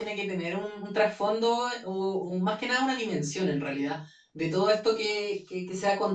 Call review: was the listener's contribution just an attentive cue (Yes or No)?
Yes